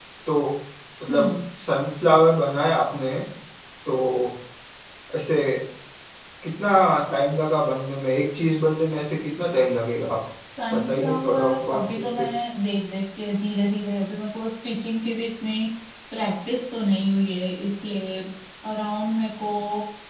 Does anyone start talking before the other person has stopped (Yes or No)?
Yes